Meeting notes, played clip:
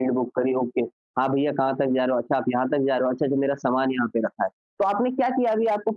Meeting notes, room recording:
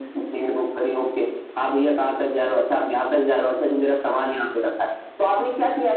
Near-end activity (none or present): none